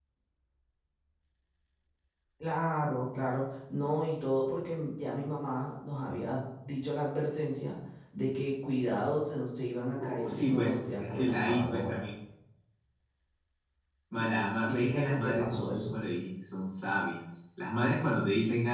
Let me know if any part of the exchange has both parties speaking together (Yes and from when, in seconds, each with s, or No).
Yes, from 10.0 s